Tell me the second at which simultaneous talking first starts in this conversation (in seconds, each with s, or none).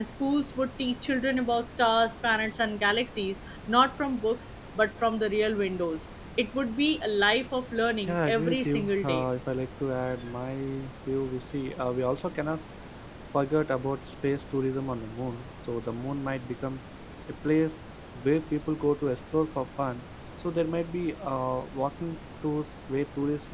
8.0 s